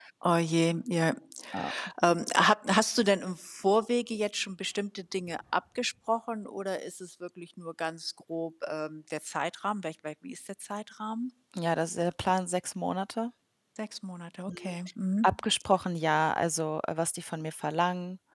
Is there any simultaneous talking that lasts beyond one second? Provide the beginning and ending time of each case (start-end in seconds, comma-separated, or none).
none